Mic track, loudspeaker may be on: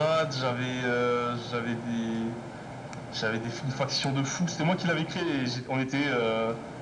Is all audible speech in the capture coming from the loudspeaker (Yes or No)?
Yes